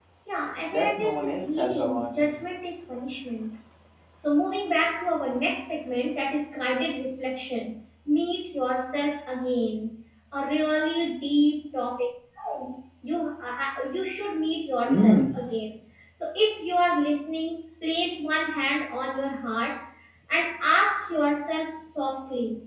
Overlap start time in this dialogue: 0.7 s

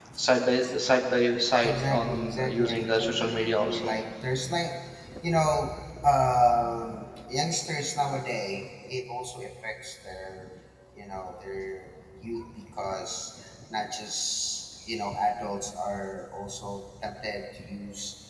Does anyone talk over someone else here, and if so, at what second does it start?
1.6 s

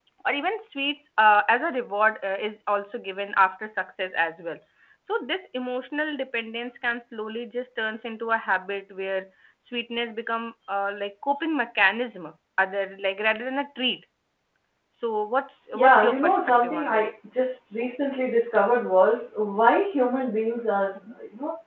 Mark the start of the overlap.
15.7 s

